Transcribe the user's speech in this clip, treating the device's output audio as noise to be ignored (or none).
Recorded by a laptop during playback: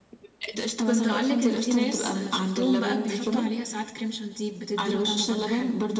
كنت اقولك ان في ناس شفتهم بقى بيحطوا عليها ساعات كريم شانتيه بتدي له طعمه برضو حلو